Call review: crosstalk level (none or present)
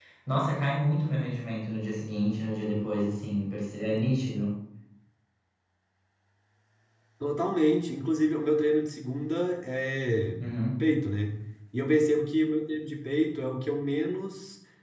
none